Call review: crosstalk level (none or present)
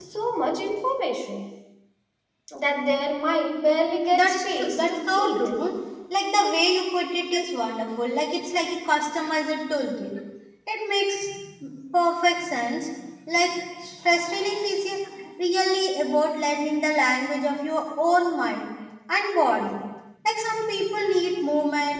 present